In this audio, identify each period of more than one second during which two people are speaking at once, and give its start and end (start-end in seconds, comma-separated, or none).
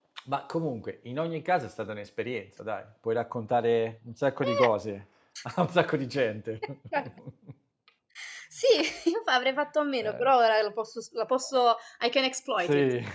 none